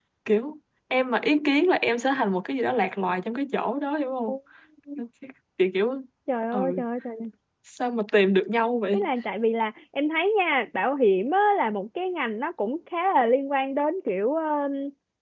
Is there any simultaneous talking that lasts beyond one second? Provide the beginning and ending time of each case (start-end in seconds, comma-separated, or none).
none